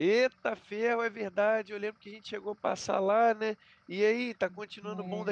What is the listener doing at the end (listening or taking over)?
taking over